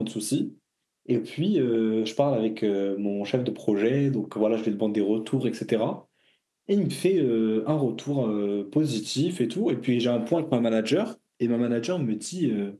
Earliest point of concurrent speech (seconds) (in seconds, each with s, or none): none